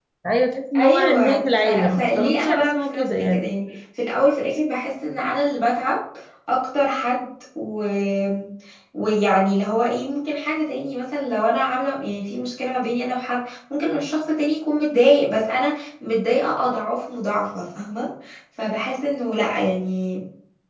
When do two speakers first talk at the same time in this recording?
0.8 s

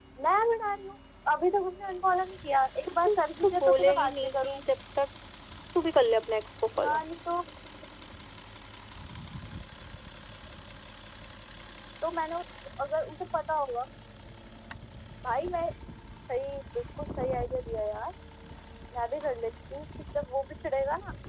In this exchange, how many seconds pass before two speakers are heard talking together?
3.0 s

